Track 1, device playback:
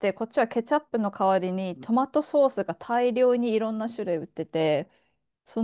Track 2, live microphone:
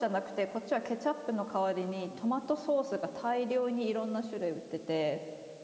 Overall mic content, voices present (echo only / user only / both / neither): echo only